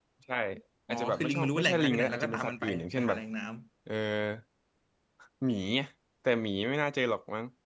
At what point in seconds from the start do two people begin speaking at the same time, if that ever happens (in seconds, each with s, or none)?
0.9 s